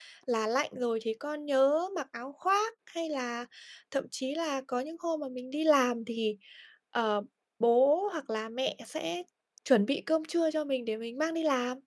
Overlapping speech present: No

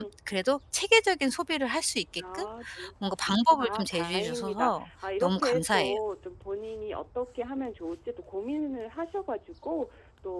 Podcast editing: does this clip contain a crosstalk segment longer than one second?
Yes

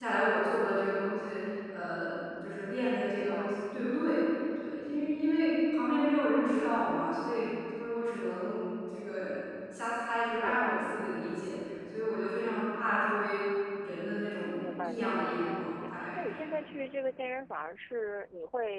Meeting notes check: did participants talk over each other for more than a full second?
Yes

